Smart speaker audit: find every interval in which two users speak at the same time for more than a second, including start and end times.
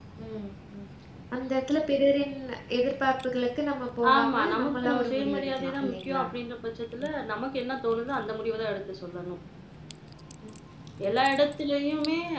4.1-6.2

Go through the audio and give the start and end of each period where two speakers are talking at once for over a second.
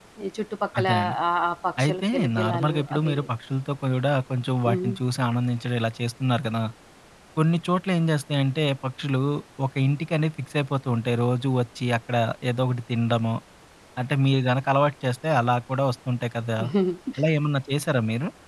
1.8-3.3

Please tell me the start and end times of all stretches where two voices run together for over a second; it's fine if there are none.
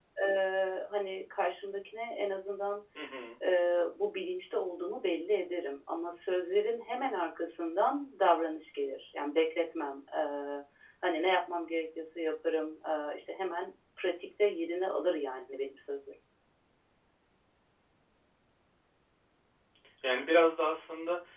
none

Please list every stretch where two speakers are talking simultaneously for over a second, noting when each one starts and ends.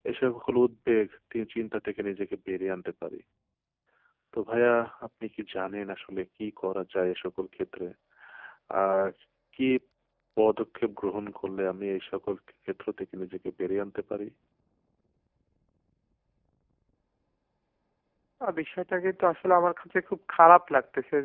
none

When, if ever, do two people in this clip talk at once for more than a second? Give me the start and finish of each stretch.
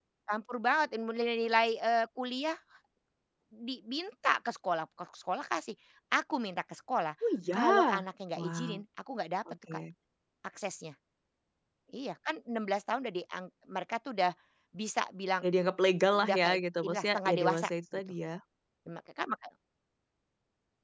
16.1-18.0

